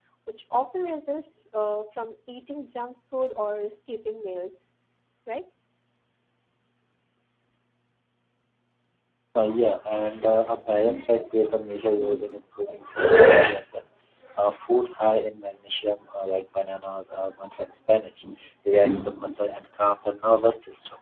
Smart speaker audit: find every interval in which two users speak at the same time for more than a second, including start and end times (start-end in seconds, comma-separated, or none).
none